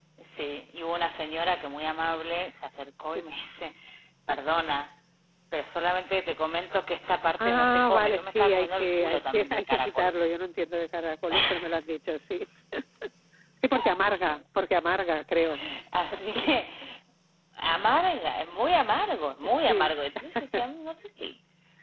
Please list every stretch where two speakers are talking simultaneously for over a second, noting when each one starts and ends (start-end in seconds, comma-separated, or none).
7.5-10.1